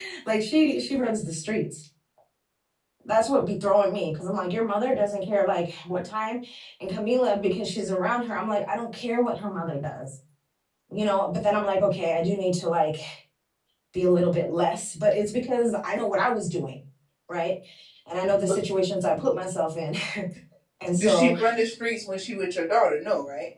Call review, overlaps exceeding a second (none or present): none